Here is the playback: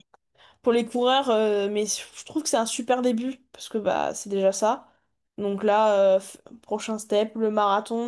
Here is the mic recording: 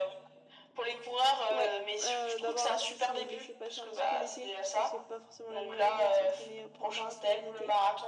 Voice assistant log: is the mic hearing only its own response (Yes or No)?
No